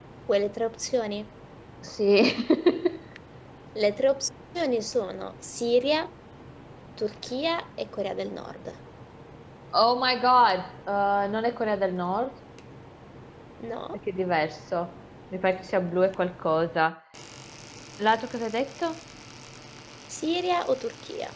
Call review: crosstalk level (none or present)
none